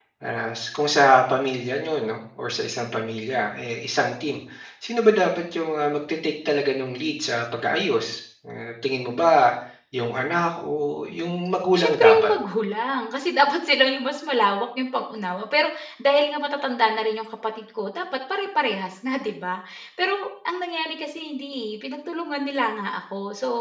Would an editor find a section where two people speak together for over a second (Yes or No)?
No